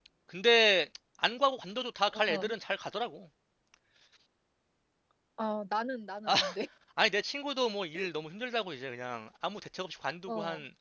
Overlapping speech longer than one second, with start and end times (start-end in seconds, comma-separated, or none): none